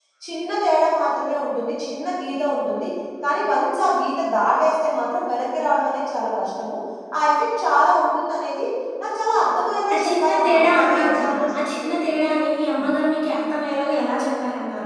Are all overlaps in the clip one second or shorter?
No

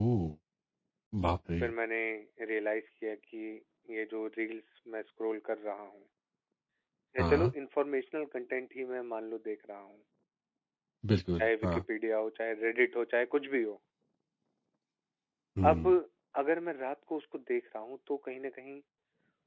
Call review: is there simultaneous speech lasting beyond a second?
No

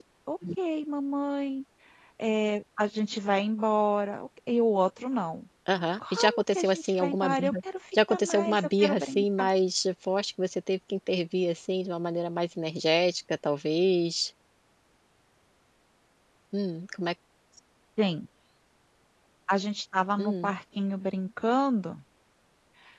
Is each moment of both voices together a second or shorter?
No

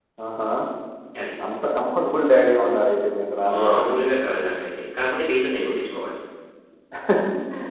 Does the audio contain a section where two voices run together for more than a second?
No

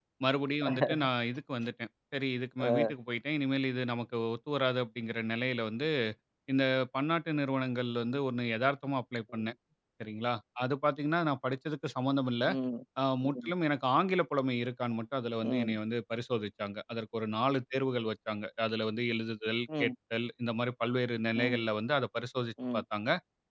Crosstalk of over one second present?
No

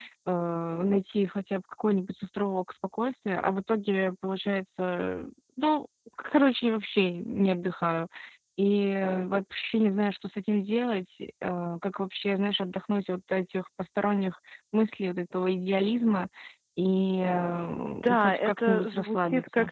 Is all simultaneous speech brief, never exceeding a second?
No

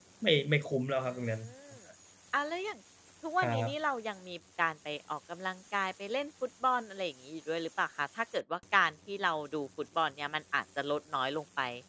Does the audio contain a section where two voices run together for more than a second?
No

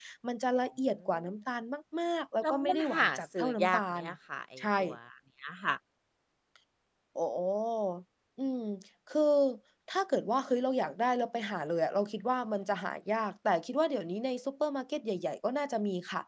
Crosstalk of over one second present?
Yes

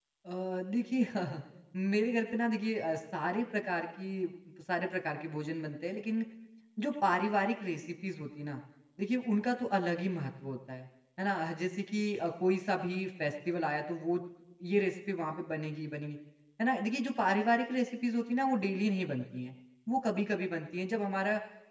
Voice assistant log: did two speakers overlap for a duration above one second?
No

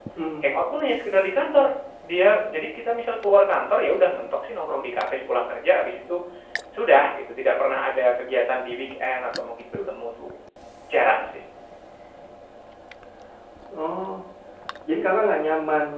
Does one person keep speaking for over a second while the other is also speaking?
No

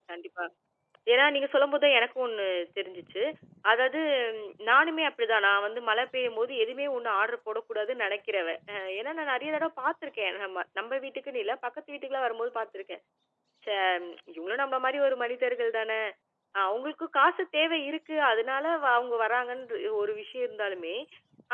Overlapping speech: No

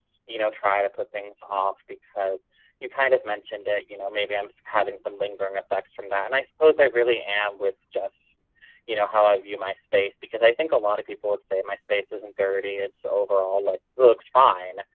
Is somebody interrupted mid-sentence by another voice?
No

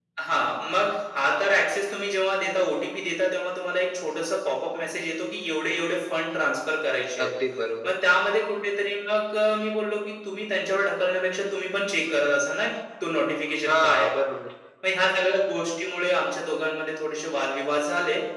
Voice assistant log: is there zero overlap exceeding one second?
Yes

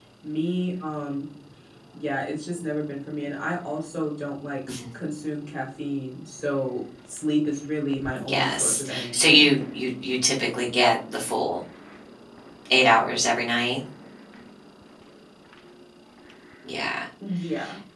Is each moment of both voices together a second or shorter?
No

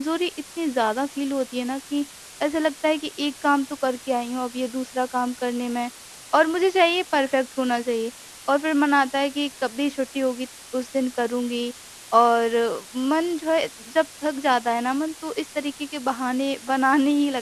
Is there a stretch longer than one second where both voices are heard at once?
No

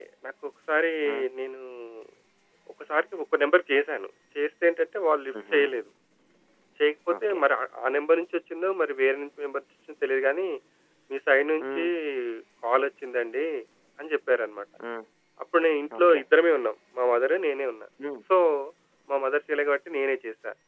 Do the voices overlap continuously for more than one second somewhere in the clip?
No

